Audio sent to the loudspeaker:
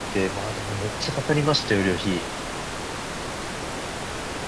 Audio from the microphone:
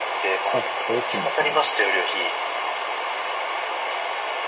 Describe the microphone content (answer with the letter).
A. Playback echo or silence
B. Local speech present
B